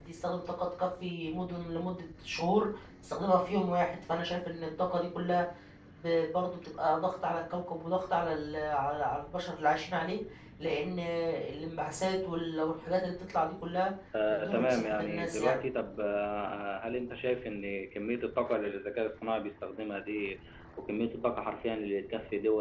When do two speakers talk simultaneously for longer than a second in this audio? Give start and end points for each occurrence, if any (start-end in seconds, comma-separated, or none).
14.3-15.6